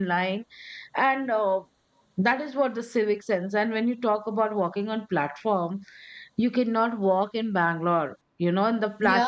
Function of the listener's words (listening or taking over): taking over